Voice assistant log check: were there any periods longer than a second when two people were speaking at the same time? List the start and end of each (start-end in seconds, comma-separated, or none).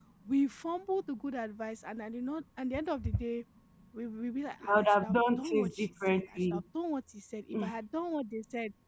4.7-6.6